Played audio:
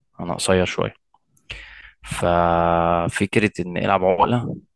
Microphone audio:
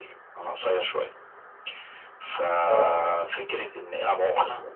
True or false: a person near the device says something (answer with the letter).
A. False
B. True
B